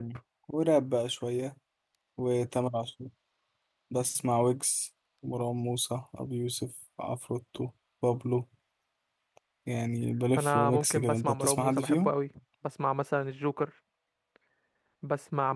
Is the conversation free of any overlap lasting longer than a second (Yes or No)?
No